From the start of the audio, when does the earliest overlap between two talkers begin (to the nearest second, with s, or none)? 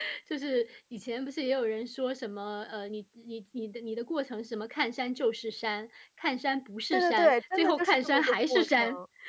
7 s